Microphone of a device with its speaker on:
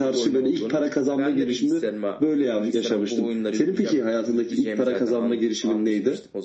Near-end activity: none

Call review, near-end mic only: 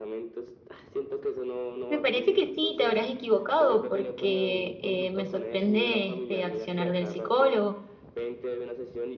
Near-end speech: present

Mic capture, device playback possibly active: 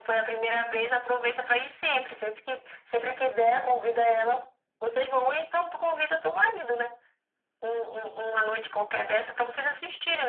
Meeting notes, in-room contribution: none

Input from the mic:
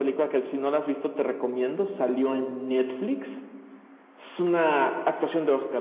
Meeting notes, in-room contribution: none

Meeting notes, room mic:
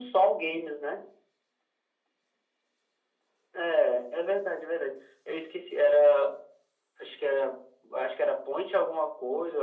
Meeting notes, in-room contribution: none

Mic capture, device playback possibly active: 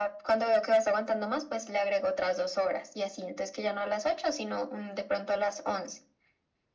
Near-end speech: none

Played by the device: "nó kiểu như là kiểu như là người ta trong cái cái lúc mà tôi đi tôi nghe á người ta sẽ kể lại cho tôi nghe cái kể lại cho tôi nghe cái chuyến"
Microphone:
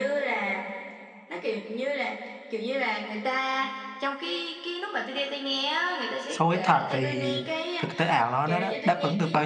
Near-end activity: present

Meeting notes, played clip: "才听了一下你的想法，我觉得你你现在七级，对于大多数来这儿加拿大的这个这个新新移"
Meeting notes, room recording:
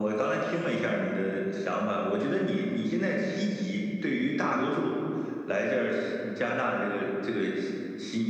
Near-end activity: none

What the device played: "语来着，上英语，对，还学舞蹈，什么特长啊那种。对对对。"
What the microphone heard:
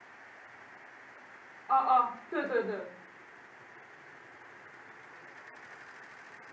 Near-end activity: present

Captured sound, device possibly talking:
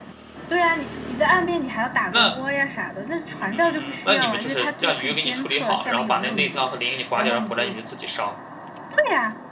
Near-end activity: present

